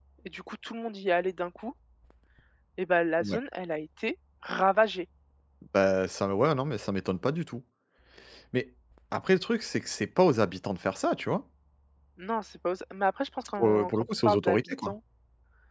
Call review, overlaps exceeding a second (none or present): present